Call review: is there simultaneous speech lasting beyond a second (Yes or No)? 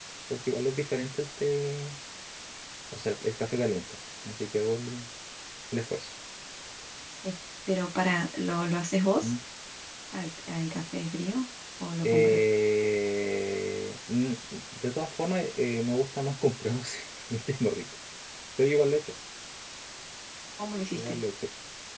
No